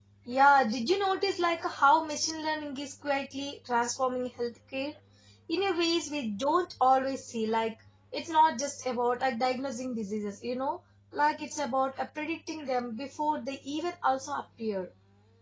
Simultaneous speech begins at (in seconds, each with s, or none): none